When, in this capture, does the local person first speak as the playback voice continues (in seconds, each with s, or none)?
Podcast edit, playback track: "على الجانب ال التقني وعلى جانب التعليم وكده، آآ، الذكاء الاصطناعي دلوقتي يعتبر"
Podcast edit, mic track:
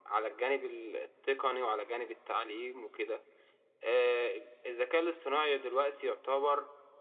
none